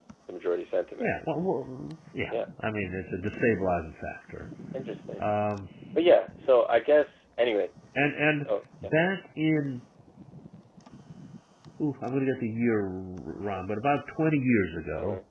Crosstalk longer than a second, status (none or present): none